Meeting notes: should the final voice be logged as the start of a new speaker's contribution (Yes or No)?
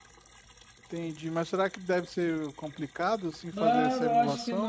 Yes